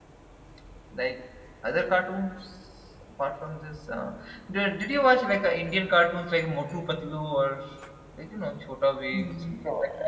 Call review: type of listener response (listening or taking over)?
taking over